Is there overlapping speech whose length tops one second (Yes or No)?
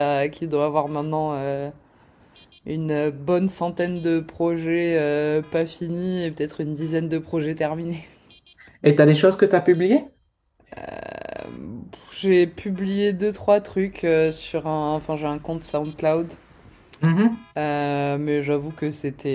No